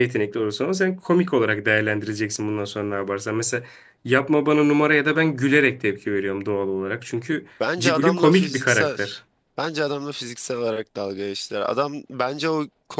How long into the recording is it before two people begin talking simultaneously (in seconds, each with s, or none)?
7.6 s